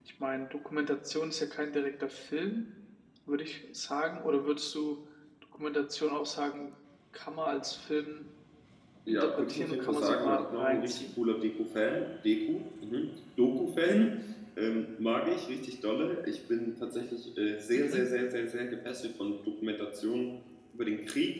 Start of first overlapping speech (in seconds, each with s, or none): 9.1 s